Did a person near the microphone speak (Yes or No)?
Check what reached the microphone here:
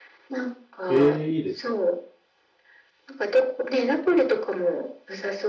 Yes